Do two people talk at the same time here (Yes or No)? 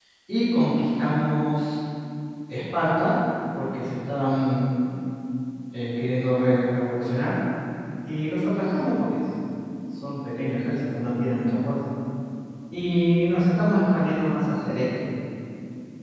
No